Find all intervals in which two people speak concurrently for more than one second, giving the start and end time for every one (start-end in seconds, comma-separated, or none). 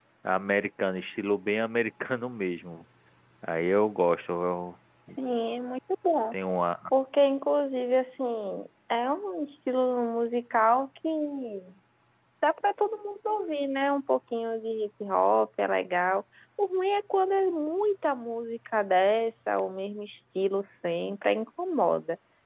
none